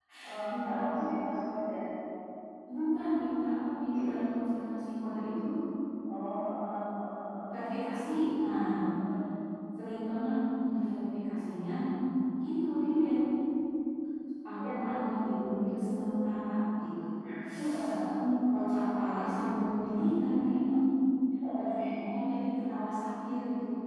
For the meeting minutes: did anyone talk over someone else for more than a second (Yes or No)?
Yes